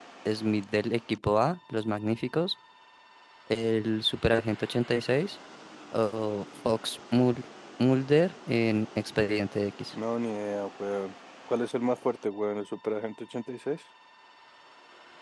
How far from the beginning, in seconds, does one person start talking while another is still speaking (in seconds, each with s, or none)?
none